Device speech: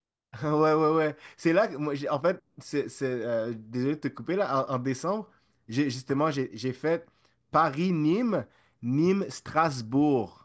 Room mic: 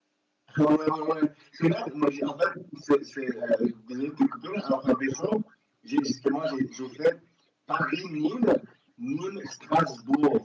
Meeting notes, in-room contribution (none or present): none